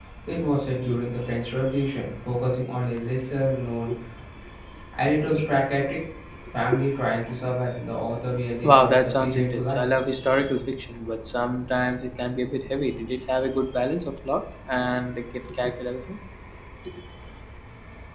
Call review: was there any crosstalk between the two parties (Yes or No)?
Yes